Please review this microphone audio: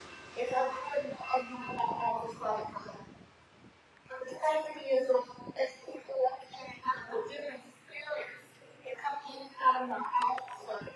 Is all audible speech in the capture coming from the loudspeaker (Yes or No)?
Yes